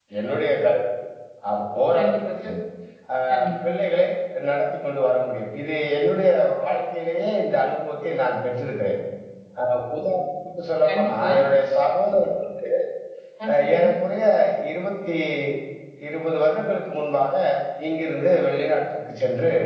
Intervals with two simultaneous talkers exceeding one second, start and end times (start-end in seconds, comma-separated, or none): none